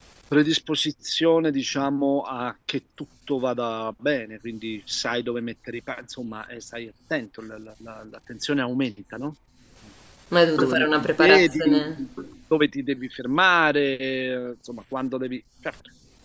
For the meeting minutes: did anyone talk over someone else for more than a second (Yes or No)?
Yes